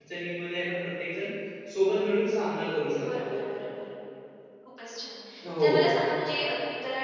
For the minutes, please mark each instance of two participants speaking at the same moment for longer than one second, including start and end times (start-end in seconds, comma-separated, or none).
none